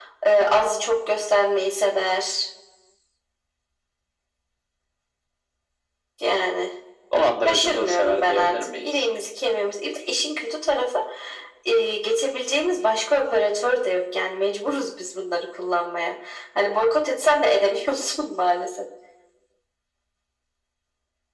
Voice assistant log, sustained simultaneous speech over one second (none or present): present